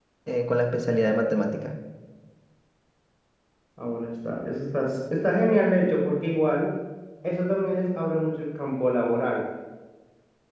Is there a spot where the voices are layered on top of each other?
No

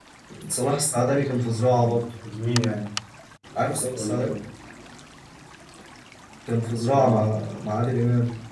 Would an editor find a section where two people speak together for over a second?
No

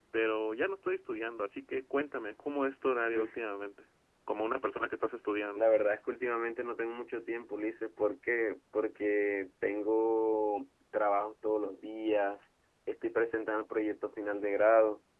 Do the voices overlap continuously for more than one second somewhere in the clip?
No

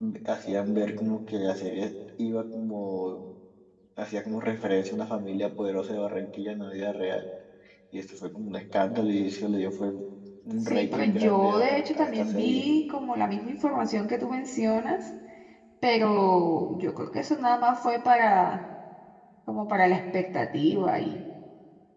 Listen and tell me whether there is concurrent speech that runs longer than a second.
Yes, from 10.7 s

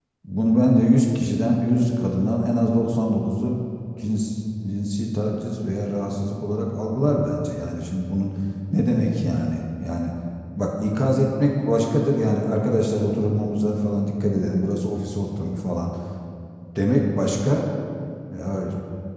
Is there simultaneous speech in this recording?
No

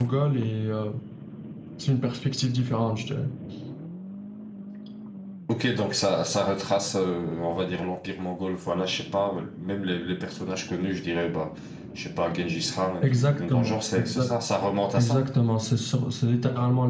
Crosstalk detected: Yes, from 13.0 s

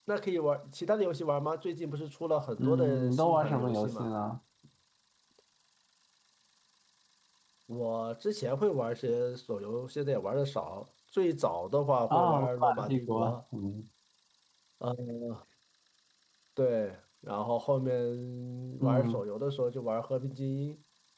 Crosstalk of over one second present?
Yes, from 2.6 s

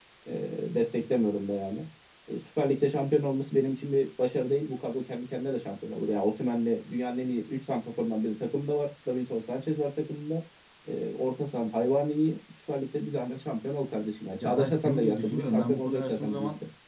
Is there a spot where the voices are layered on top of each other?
Yes, from 14.4 s

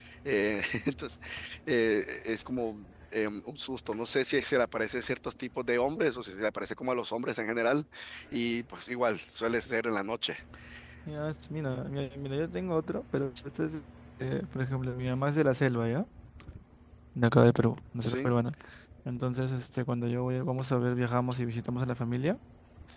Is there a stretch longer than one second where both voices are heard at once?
No

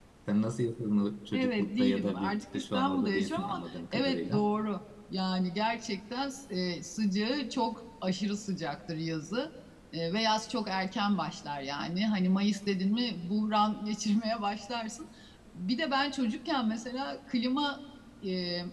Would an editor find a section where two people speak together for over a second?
Yes, from 1.3 s

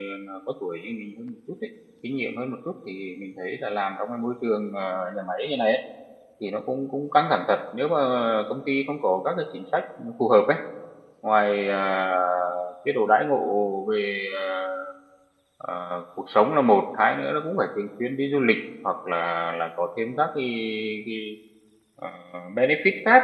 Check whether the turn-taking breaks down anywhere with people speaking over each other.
No

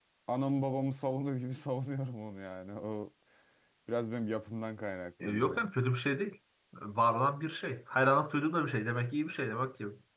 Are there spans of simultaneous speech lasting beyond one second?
No

